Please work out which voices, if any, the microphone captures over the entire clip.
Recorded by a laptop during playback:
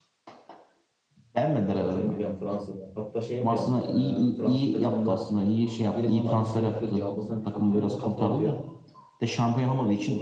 both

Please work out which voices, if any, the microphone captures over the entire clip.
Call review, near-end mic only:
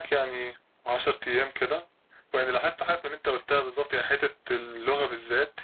echo only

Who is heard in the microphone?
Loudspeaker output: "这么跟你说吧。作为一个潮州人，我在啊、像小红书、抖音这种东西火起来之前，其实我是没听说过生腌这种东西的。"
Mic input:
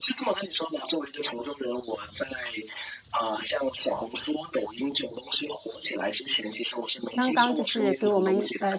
both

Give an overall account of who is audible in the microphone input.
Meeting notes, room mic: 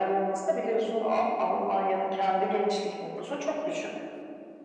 echo only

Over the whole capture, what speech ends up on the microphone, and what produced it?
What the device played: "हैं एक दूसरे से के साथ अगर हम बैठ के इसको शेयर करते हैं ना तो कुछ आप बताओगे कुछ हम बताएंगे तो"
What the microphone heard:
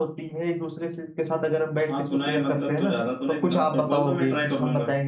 both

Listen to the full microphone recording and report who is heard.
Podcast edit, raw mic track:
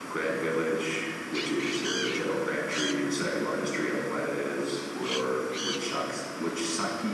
echo only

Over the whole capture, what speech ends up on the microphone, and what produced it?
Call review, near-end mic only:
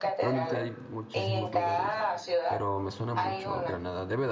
both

